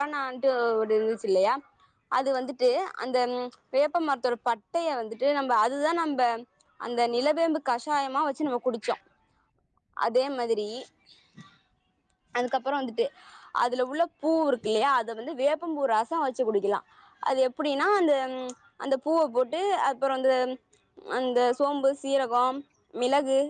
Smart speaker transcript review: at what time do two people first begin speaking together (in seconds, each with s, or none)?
none